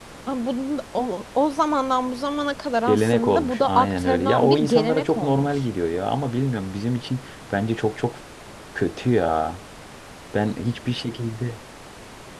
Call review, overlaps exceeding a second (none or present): present